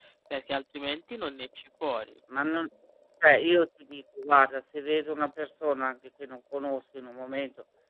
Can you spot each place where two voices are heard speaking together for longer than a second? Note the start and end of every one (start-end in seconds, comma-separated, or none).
none